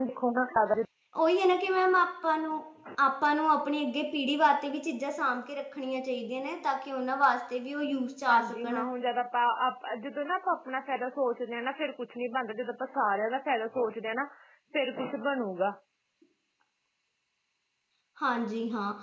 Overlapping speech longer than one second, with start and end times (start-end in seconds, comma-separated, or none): none